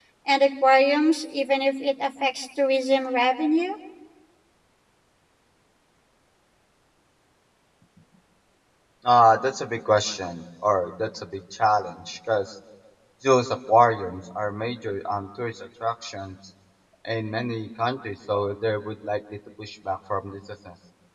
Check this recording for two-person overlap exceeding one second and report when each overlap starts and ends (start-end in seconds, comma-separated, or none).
none